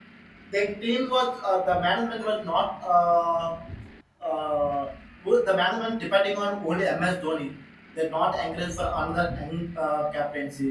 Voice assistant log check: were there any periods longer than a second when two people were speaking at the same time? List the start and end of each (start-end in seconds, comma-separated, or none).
none